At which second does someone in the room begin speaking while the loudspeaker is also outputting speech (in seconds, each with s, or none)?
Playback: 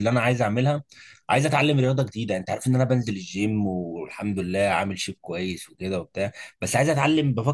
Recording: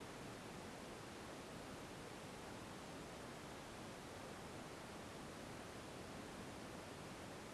none